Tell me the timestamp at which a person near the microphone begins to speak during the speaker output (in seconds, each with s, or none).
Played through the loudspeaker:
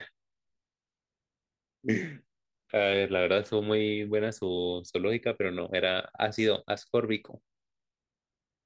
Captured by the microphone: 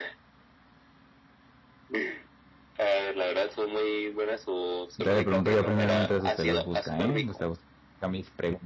5.0 s